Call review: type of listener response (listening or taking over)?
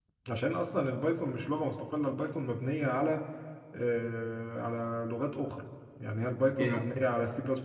listening